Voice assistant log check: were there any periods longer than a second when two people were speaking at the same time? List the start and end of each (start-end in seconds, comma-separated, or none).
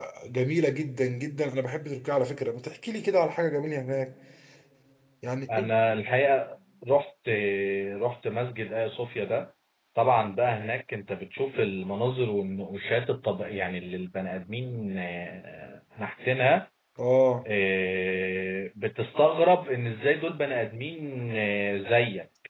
none